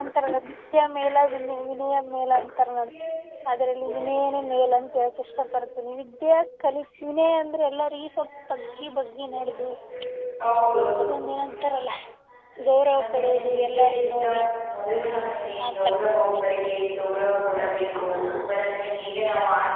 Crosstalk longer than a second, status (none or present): present